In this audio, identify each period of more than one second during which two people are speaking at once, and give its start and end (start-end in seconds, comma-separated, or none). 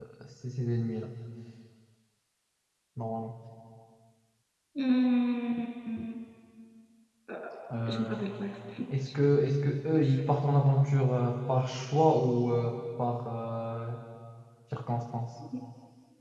none